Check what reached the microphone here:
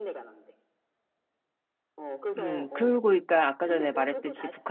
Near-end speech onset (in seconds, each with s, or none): 2.4 s